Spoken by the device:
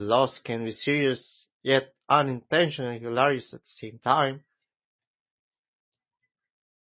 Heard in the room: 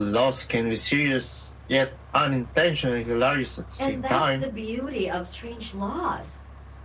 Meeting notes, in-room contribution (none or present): present